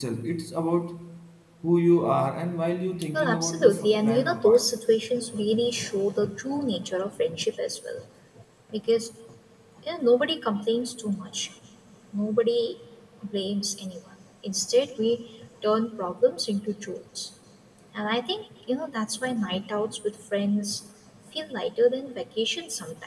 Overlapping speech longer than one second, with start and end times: 3.1-4.7

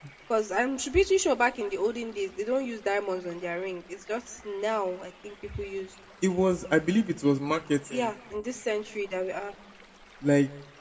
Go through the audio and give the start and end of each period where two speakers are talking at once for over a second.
none

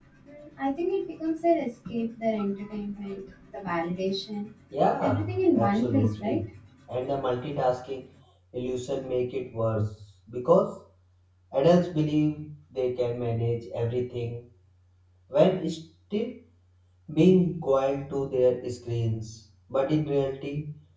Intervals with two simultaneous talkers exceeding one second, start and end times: 5.0-6.4

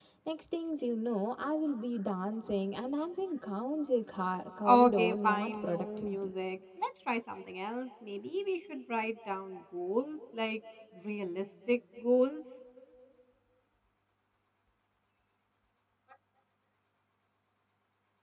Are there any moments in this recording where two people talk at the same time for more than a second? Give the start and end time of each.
4.6-6.3

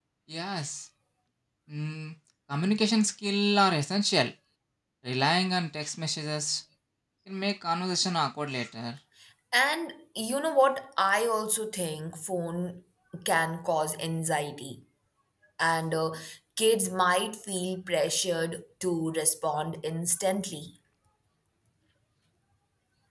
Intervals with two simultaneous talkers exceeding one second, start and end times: none

